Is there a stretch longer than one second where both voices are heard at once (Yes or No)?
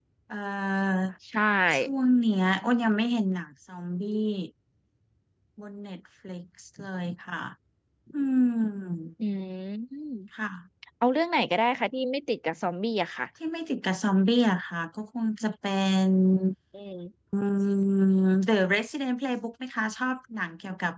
No